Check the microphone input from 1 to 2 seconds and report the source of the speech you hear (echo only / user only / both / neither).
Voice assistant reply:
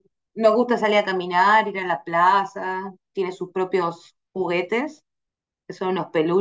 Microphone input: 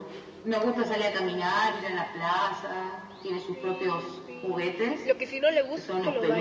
echo only